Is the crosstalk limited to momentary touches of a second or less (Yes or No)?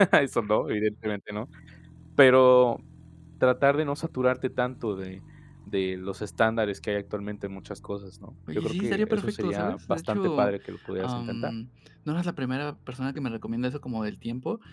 No